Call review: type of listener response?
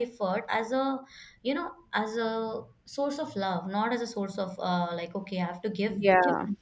listening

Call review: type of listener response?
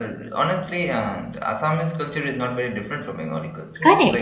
taking over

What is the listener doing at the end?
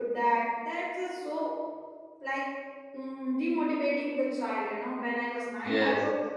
listening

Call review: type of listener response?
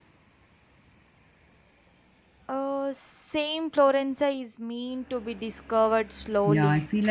taking over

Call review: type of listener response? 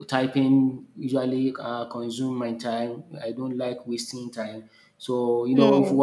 listening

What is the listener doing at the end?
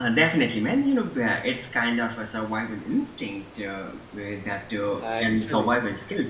listening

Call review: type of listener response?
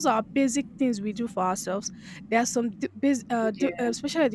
listening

